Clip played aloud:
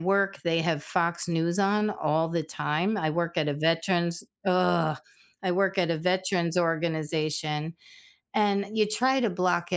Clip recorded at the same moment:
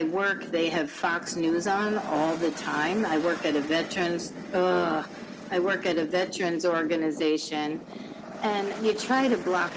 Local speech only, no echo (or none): none